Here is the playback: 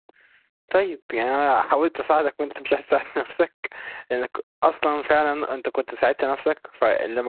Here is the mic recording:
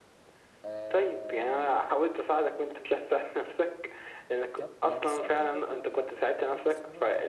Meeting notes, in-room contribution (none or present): present